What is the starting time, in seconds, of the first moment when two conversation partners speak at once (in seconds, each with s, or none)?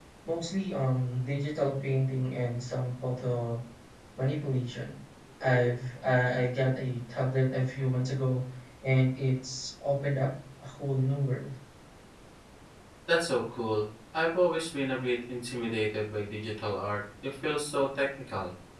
none